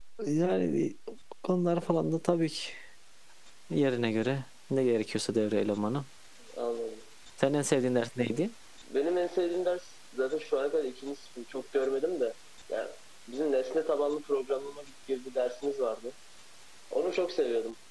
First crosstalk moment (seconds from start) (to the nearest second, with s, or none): none